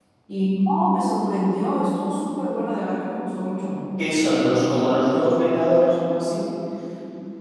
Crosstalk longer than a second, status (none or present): none